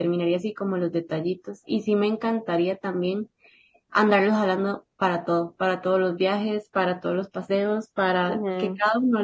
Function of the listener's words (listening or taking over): listening